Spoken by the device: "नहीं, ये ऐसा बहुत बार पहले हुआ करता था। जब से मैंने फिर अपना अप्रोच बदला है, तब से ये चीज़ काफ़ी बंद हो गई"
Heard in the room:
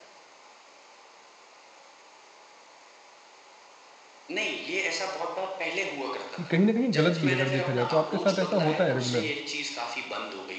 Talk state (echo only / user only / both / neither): both